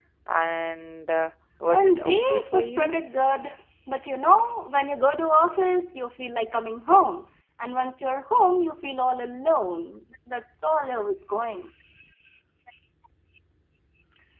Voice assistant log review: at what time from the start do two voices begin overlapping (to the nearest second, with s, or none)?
2 s